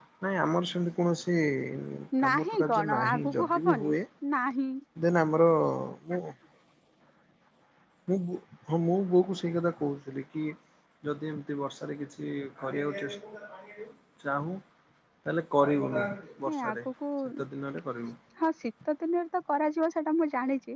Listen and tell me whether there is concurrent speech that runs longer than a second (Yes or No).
Yes